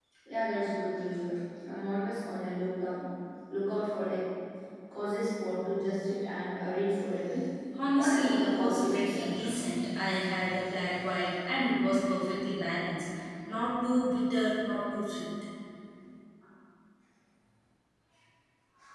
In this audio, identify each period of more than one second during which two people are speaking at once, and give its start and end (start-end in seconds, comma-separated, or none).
7.9-9.3